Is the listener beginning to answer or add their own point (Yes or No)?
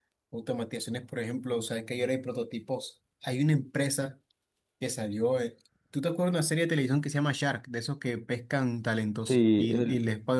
No